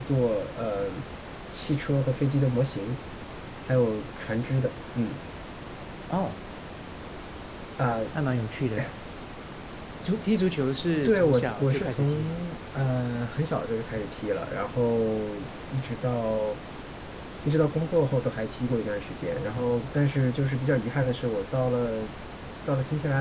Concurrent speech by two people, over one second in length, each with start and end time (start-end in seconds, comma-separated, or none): 11.1-12.3